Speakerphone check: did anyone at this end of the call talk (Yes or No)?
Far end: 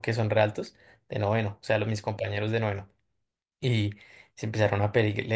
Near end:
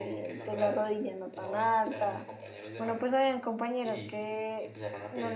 Yes